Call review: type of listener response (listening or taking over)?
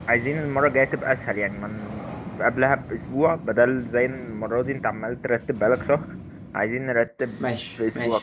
taking over